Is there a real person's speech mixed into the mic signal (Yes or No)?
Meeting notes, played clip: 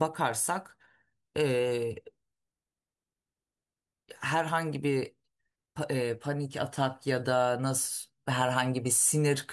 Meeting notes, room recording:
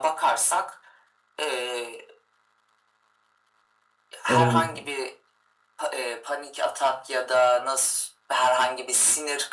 Yes